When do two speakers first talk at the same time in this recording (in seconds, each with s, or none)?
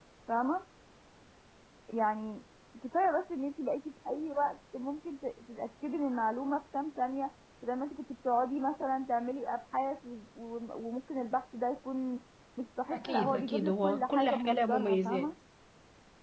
12.9 s